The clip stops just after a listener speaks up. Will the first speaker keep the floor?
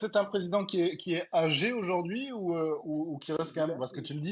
Yes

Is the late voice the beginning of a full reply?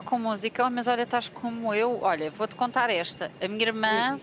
No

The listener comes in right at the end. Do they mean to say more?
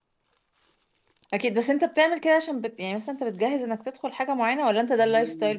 Yes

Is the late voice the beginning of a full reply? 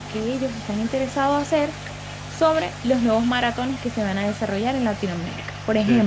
No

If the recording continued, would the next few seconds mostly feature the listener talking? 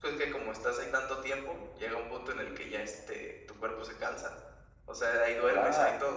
Yes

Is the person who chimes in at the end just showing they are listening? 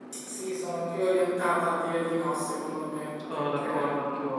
No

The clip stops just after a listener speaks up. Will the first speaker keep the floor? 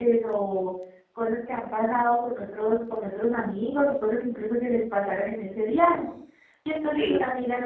Yes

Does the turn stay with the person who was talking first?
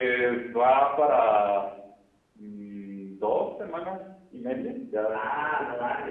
No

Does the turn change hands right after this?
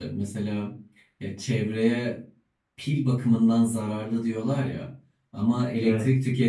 No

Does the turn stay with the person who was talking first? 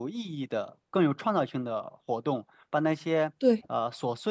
Yes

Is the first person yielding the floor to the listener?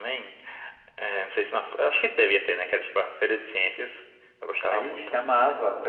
Yes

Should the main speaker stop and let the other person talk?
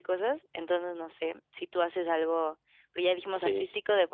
No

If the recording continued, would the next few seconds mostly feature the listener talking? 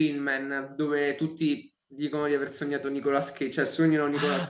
Yes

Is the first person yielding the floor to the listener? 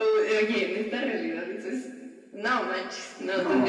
No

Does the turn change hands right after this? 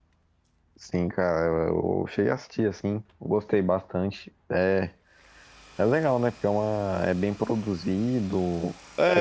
Yes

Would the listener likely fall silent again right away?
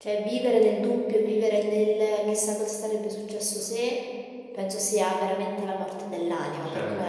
Yes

